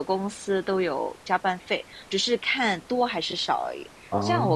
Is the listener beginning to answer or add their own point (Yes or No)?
No